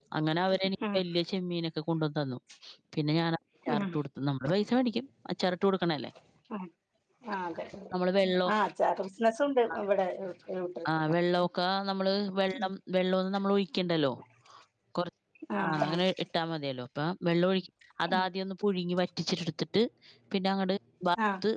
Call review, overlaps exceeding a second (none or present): none